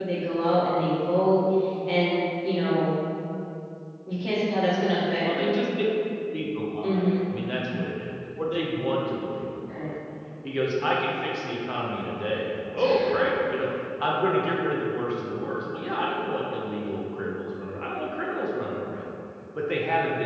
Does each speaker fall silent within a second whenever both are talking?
Yes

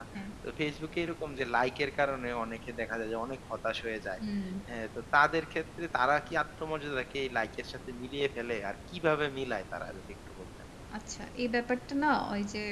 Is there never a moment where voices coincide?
Yes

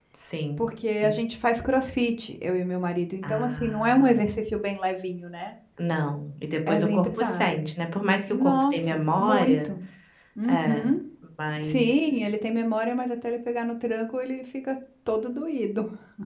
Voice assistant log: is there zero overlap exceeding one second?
No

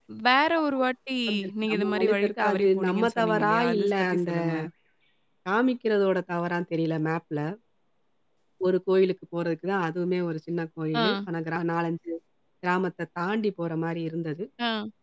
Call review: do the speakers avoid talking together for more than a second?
No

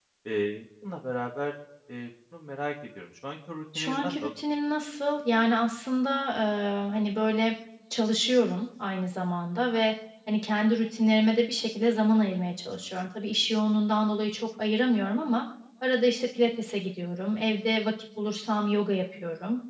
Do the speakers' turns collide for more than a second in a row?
No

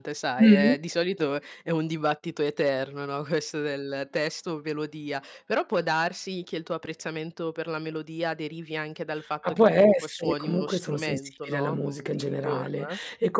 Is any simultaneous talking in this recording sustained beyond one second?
Yes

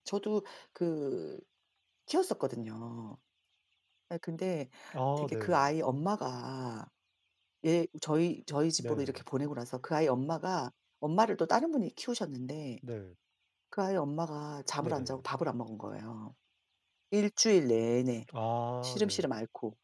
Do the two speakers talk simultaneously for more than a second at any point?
No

